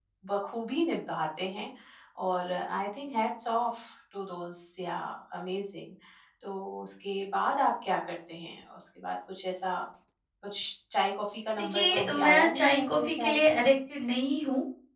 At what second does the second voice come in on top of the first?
12 s

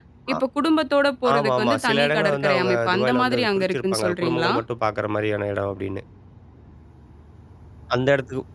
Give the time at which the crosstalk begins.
1 s

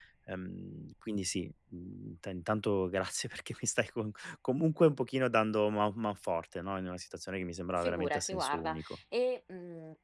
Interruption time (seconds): 8 s

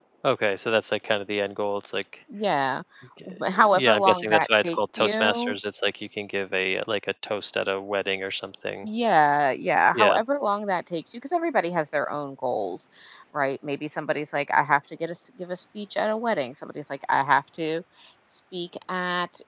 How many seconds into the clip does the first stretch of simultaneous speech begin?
4 s

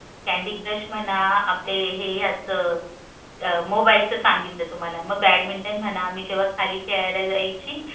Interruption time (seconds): none

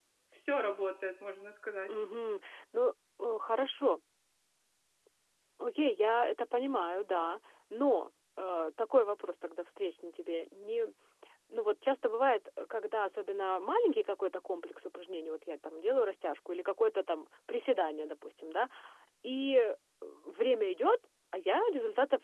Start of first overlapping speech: none

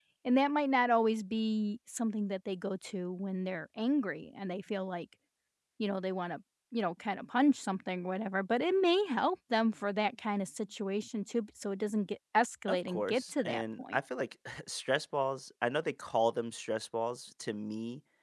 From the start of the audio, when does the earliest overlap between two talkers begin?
13 s

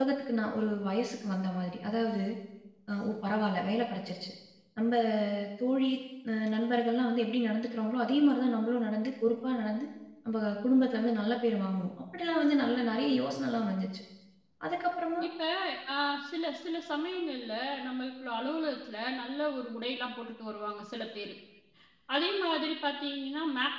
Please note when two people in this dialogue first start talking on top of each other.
none

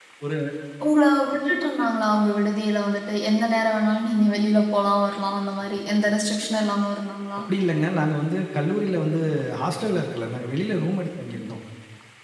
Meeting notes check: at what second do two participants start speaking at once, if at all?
none

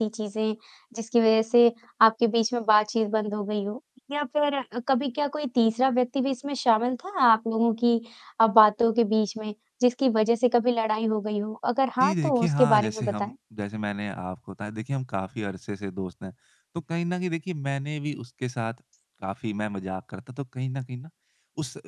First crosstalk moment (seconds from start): 12 s

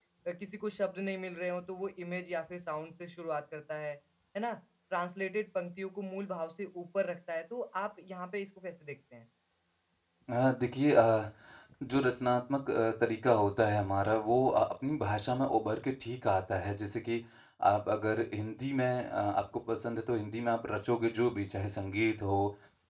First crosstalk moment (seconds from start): none

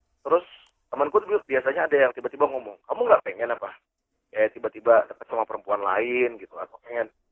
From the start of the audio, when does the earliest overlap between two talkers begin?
none

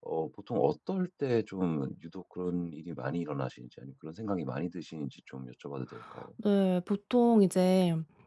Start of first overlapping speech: none

